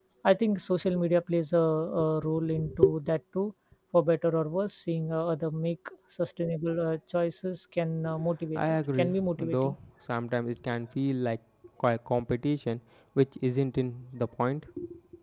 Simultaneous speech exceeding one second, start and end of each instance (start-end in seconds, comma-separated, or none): 8.6-9.8